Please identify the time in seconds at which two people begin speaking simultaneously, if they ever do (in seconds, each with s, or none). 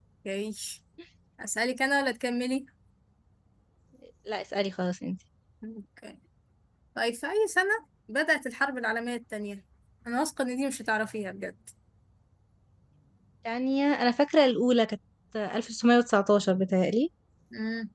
none